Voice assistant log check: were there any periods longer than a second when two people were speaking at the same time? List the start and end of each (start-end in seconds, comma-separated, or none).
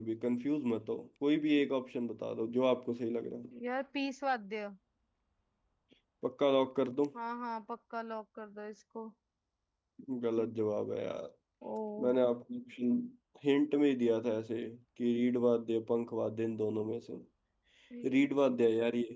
none